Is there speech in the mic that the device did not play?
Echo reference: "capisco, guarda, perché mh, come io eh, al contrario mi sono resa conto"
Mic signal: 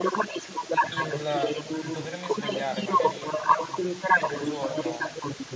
Yes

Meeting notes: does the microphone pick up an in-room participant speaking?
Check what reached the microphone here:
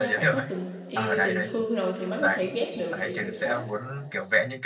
Yes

